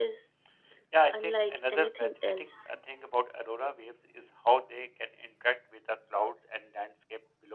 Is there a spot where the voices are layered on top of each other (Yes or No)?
Yes